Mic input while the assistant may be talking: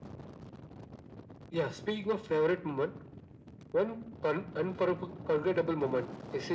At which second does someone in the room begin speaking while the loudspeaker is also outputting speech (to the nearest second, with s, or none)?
none